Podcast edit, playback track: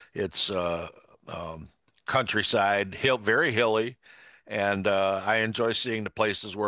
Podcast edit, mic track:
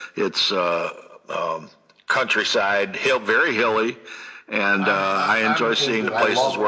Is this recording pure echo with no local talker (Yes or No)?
No